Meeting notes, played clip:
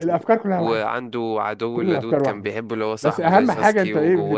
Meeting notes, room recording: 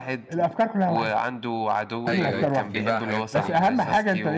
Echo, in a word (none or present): present